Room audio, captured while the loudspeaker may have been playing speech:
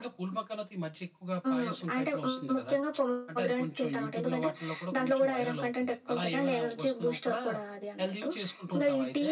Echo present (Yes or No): Yes